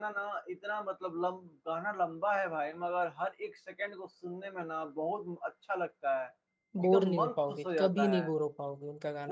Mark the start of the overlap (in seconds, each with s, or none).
6.8 s